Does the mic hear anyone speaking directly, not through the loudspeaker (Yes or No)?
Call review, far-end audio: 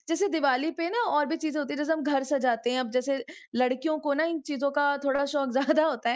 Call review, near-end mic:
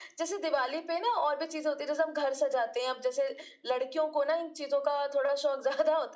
No